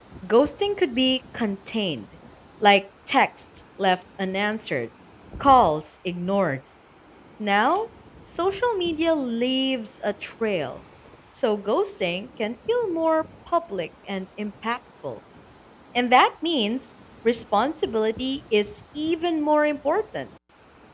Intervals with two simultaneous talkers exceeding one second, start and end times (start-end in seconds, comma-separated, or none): none